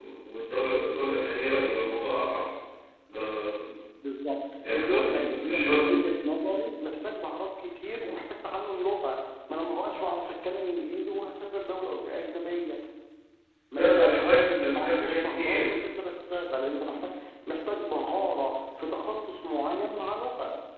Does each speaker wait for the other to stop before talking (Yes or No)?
No